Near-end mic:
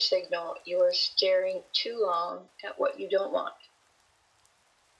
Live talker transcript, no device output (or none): none